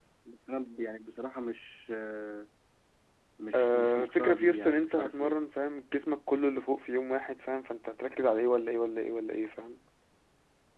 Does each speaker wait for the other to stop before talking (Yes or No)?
No